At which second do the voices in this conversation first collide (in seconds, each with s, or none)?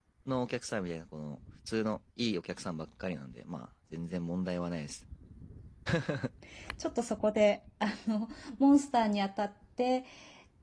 none